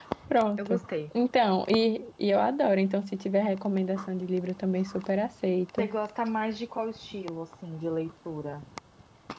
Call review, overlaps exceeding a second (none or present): none